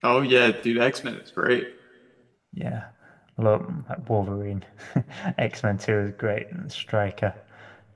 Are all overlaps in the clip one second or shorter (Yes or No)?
Yes